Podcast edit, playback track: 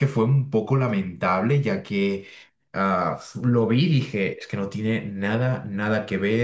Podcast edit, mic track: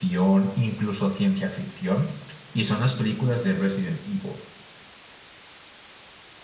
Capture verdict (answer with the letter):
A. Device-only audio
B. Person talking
B